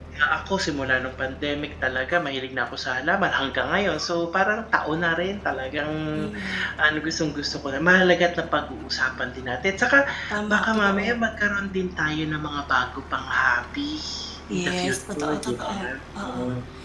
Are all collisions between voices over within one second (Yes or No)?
No